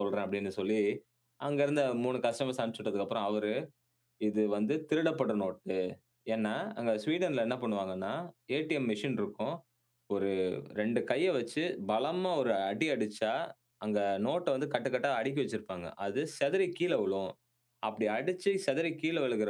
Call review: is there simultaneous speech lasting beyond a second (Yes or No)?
No